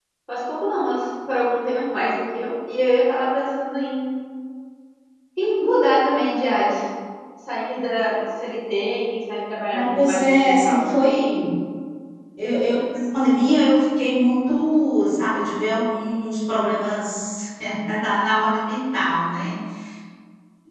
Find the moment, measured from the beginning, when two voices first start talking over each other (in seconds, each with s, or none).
9.7 s